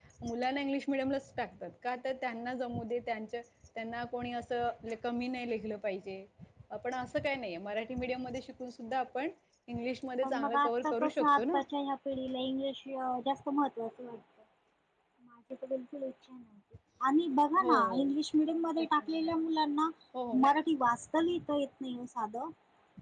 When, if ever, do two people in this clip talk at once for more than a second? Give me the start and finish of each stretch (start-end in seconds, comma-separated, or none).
10.2-11.6